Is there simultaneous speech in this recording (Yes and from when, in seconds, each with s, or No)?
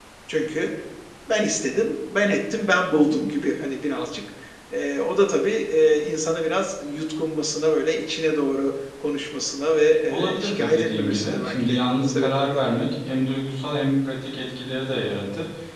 Yes, from 10.1 s